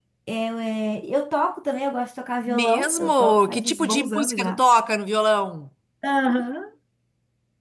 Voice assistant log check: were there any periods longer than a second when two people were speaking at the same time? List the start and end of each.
2.5-4.6

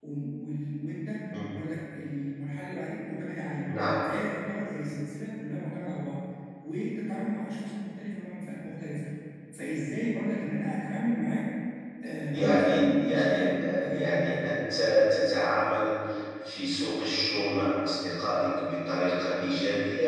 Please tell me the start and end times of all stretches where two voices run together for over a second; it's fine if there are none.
12.3-14.4

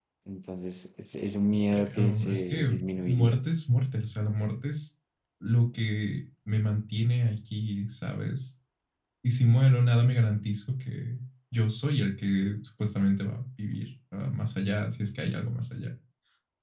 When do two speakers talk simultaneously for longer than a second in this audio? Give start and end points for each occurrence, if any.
1.7-3.4

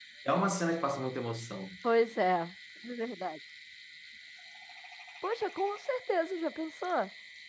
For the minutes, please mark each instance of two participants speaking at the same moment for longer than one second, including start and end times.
none

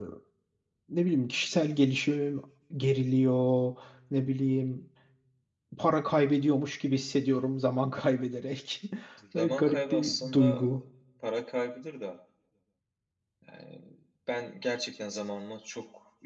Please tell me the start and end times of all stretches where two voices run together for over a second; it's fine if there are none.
9.3-10.8

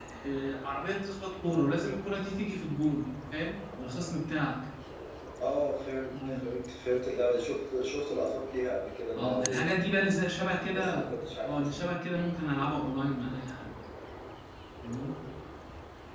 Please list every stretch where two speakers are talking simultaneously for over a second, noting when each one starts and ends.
none

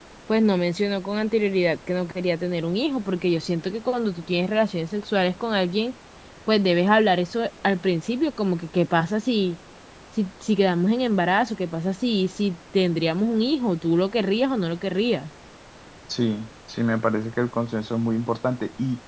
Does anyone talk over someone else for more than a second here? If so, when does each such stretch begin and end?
none

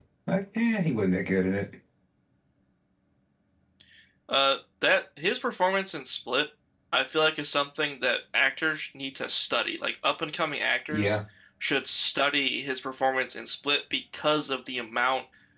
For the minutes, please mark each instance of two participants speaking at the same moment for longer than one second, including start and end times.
none

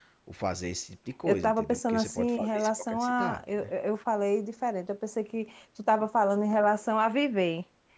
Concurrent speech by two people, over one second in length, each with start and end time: 1.3-3.7

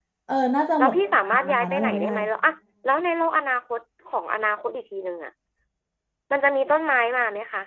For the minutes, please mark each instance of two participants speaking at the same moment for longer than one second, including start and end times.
0.8-2.1

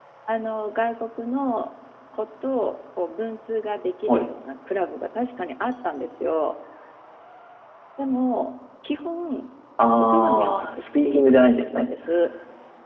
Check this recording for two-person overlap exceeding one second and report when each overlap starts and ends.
10.0-11.9

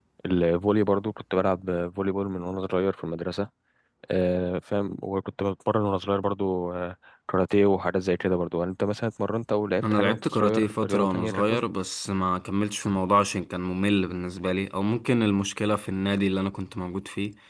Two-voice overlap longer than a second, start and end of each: 9.9-11.6

